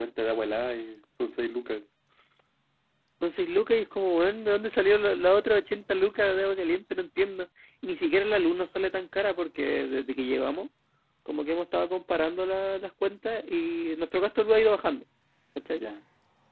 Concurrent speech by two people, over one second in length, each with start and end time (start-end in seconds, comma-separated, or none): none